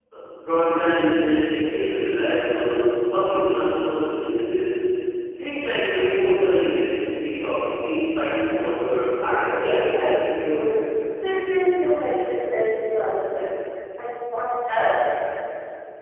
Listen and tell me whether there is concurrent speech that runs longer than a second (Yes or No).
Yes